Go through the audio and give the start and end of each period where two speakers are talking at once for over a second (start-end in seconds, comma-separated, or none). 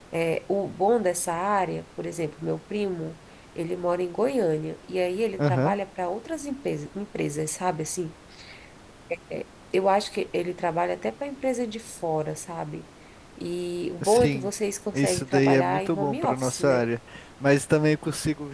14.9-16.9